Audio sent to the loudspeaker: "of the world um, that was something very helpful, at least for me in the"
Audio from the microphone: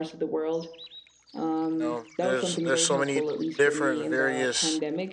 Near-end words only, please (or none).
You know, there's there's so many different various